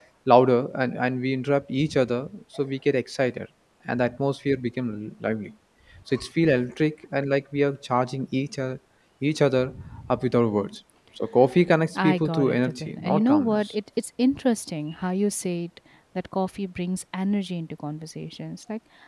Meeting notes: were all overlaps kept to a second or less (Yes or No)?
No